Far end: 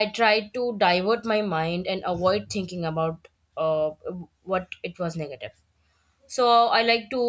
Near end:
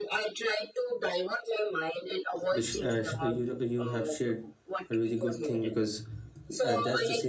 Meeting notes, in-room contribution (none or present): present